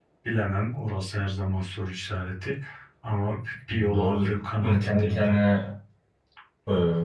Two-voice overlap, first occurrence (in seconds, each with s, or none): 3.9 s